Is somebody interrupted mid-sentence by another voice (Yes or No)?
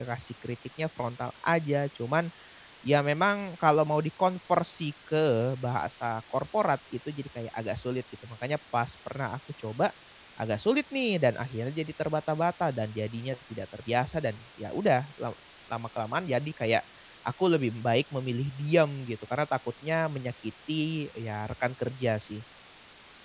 No